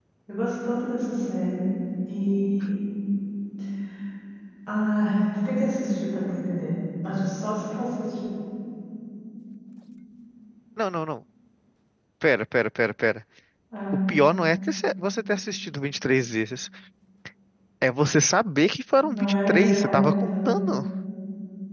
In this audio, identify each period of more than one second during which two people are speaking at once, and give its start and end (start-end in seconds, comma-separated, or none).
19.0-20.5